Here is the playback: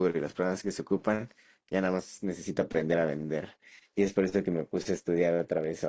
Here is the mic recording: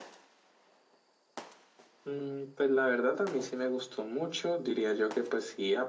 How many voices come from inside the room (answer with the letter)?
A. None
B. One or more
B